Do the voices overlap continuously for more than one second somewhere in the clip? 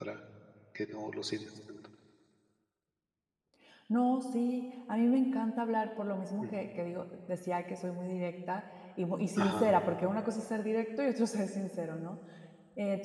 No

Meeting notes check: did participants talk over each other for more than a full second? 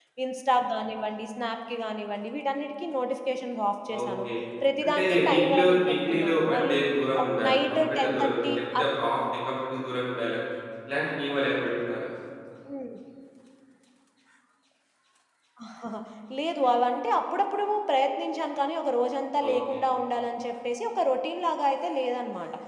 Yes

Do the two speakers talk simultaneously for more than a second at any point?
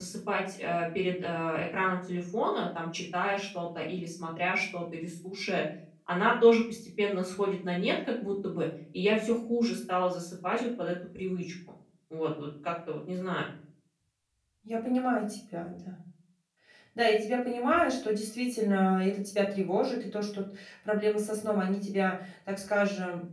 No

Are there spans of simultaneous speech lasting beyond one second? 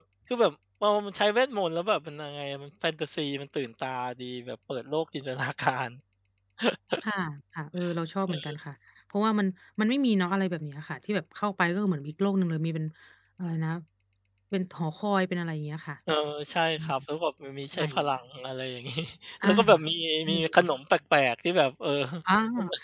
No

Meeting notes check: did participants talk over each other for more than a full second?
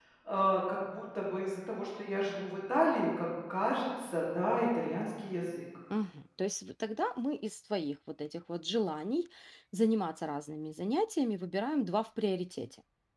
No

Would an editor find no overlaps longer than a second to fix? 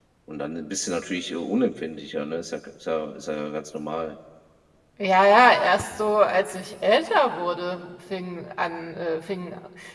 Yes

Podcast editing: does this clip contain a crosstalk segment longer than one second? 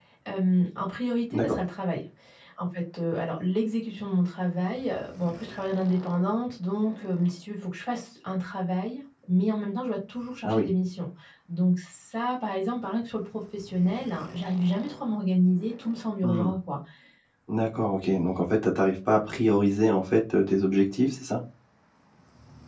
No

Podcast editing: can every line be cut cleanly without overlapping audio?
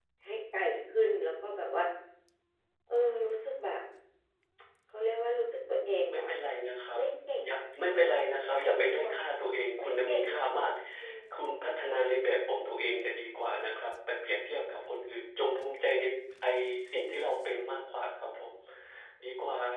No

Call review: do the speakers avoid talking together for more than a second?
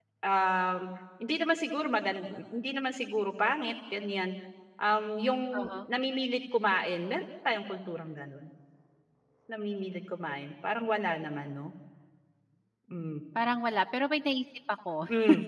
Yes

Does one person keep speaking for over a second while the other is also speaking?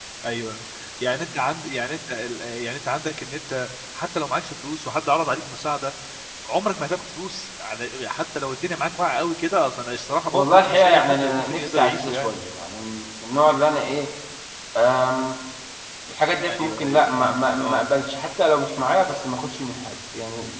Yes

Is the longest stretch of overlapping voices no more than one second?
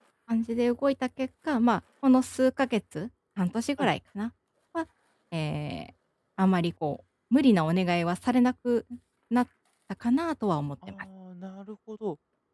Yes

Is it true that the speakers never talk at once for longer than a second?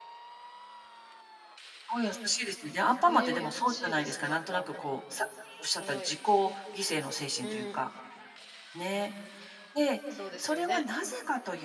No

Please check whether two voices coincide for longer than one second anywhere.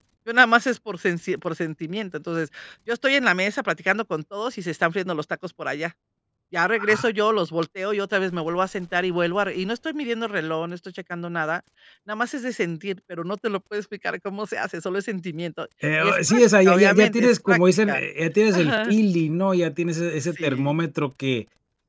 Yes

